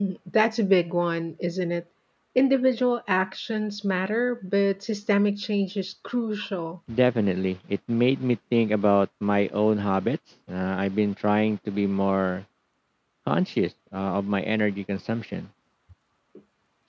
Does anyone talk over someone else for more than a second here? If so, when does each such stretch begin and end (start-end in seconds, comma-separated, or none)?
none